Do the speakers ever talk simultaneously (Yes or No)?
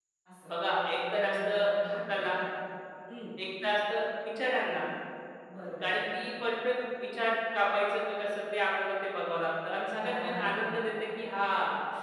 Yes